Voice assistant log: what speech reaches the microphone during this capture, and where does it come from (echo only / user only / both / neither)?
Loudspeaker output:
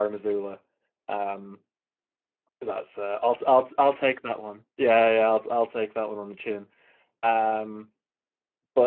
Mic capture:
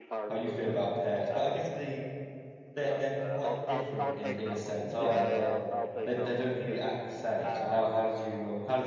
both